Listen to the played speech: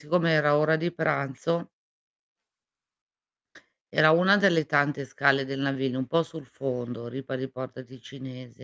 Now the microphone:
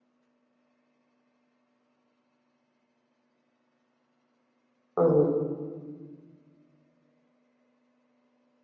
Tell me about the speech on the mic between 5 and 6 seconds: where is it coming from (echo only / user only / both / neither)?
user only